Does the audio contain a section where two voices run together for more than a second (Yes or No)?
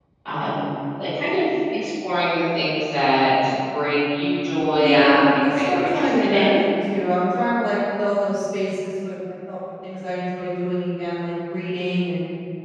Yes